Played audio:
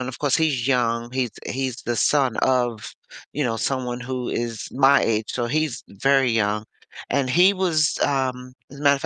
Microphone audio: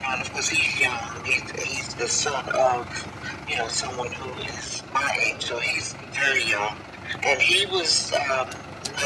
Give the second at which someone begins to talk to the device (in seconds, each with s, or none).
none